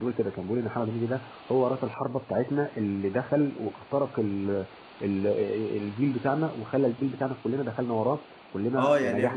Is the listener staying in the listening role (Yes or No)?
No